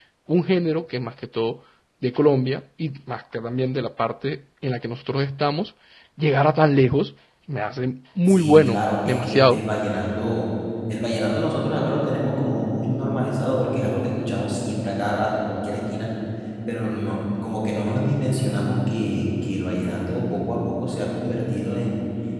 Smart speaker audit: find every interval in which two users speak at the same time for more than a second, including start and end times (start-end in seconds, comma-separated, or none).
8.2-9.7